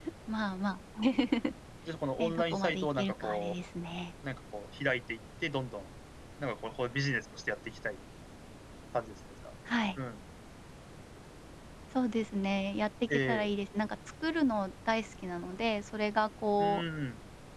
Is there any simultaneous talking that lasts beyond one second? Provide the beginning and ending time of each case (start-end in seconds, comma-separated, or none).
2.2-3.6